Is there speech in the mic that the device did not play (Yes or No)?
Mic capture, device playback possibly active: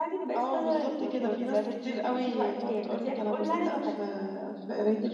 No